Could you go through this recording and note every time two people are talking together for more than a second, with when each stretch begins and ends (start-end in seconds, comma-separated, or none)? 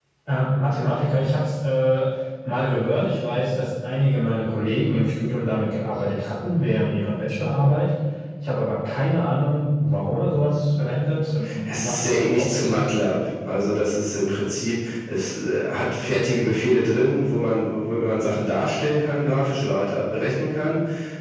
11.7-12.9